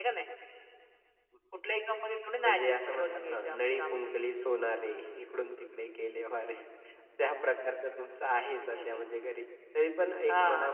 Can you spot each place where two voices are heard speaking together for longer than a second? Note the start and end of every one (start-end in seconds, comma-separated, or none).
2.4-4.1